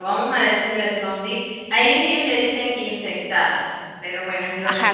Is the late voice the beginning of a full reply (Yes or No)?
Yes